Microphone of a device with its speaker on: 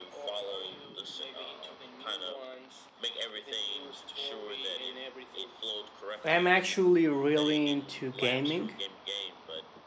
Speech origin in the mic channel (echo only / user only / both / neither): both